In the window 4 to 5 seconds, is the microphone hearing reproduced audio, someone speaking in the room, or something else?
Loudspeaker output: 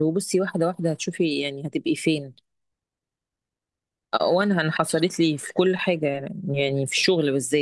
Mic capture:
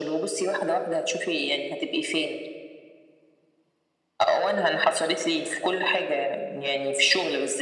echo only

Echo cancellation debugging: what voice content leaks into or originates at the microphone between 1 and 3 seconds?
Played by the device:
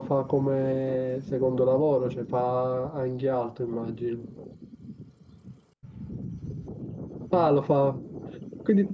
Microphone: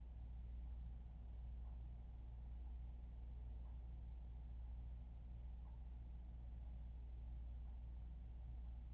neither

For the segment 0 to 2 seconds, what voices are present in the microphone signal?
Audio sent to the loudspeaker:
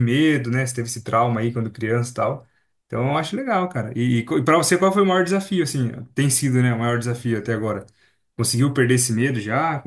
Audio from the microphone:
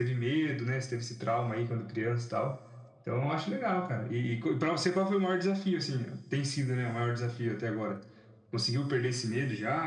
echo only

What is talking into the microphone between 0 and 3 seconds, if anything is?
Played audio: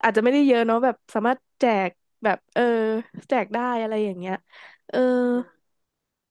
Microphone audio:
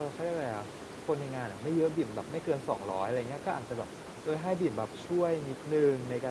user only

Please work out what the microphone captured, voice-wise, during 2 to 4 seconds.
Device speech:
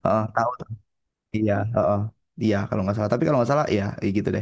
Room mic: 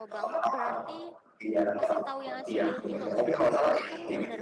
both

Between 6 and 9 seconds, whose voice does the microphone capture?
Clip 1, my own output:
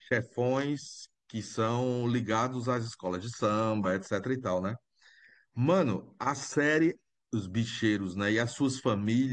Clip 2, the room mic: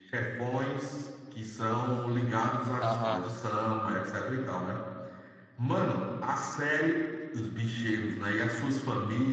echo only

